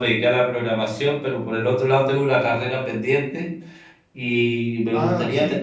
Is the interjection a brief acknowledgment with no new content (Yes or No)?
No